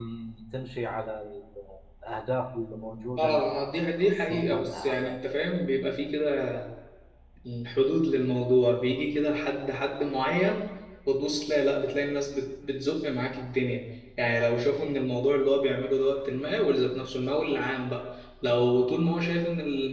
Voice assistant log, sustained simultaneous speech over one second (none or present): present